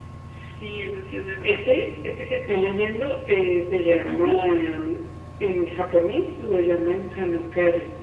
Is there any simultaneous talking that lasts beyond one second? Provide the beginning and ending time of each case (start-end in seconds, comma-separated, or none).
none